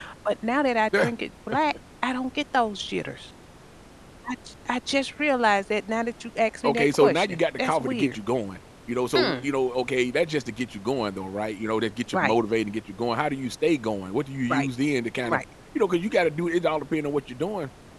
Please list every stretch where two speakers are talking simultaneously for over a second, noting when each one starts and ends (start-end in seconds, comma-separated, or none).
6.6-8.2